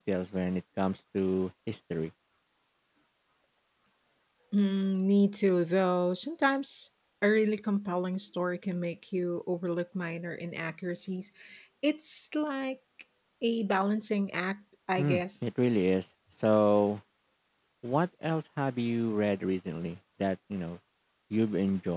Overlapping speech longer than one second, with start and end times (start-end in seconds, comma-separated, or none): none